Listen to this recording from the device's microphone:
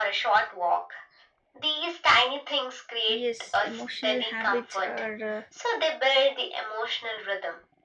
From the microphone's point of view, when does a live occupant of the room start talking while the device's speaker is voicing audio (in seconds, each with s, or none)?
3.1 s